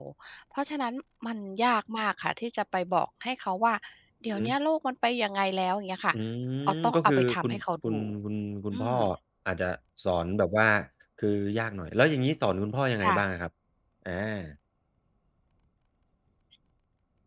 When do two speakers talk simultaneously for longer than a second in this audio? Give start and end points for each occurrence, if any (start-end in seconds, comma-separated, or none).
6.7-8.0